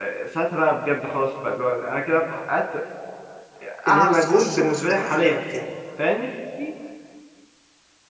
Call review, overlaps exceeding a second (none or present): present